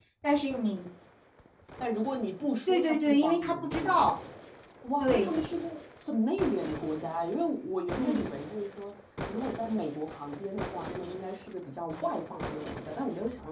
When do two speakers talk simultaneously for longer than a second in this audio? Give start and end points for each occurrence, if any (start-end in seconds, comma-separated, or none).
2.7-4.1